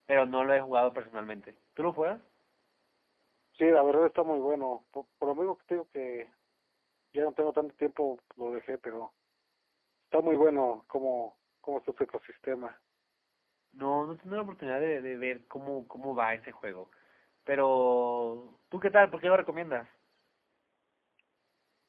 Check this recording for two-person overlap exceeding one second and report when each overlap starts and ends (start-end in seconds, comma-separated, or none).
none